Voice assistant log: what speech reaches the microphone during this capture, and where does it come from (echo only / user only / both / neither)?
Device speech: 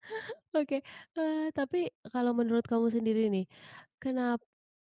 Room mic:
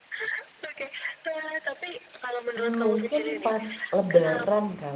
both